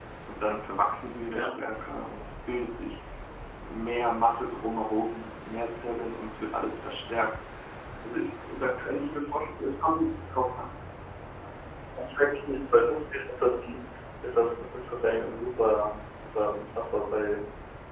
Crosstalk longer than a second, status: none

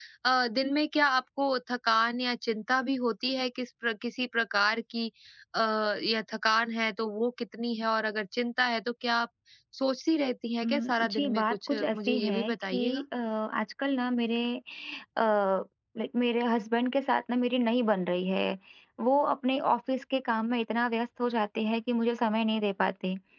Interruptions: present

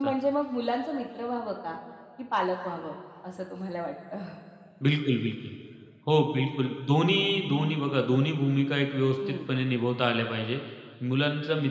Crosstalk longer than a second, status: none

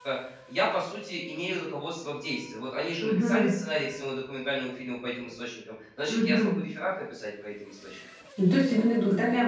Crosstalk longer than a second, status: none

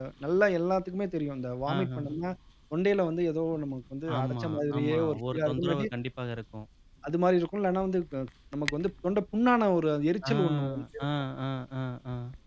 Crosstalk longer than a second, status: present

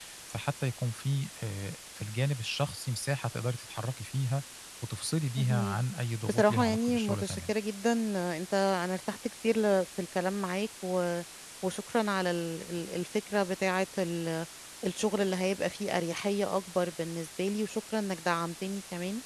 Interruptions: present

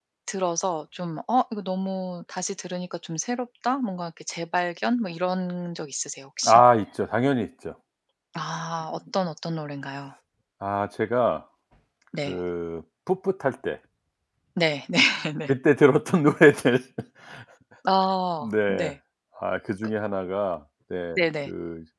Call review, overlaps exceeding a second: none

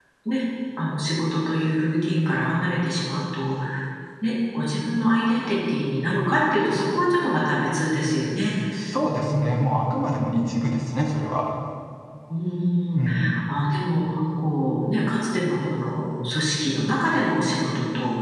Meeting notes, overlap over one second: none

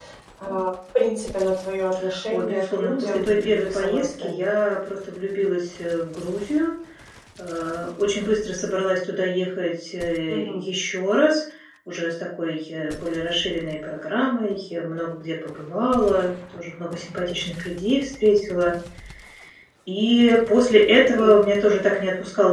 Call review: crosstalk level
present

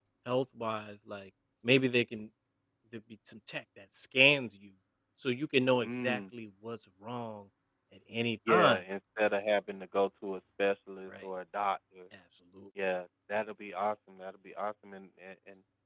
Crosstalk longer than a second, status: none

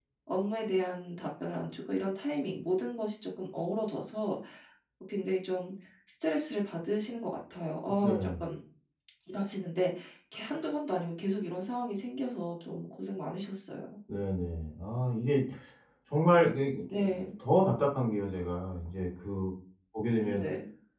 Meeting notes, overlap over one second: none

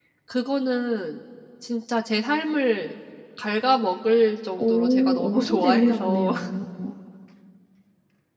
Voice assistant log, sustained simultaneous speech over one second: present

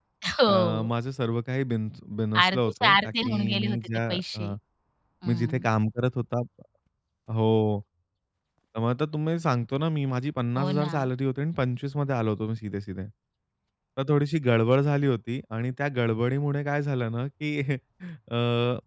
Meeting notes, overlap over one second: present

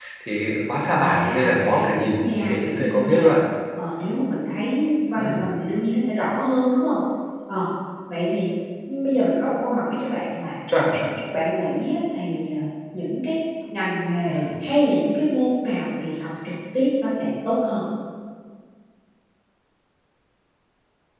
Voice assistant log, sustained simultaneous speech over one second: present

